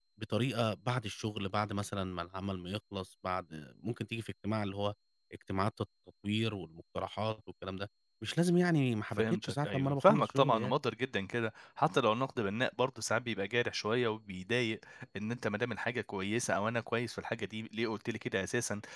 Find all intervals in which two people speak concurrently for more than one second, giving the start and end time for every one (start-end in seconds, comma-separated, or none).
9.2-10.7